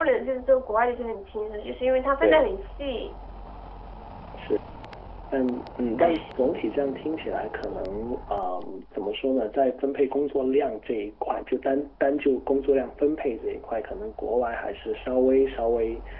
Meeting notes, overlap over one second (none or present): none